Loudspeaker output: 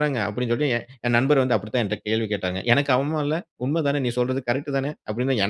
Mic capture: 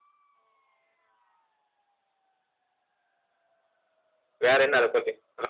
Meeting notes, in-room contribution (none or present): present